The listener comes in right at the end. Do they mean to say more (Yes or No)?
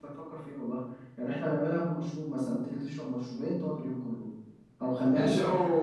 Yes